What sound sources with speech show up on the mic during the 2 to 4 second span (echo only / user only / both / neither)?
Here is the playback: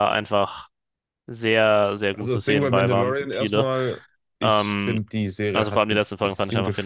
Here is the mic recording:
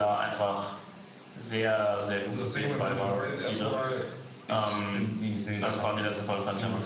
echo only